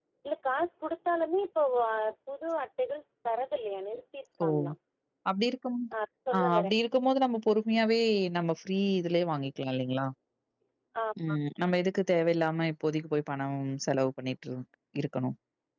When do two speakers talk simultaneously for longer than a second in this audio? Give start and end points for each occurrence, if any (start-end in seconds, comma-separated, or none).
none